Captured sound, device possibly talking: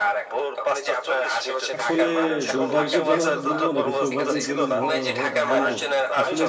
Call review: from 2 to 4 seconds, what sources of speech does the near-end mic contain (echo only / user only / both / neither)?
both